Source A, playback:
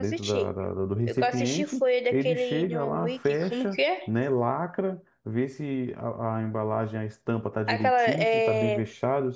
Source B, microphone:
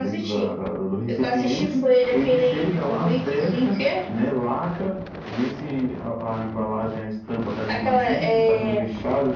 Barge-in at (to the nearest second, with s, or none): none